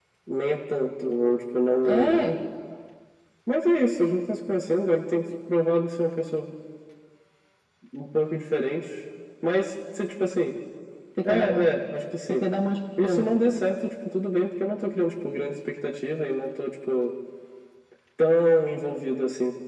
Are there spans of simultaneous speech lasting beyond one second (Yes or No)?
No